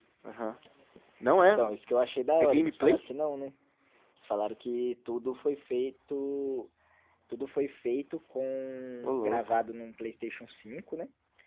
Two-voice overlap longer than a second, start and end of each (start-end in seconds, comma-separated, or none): none